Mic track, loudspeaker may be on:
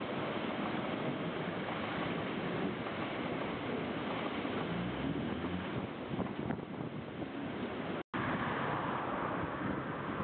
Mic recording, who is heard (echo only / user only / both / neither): neither